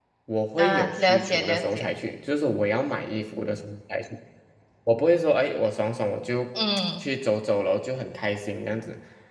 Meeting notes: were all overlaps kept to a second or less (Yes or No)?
No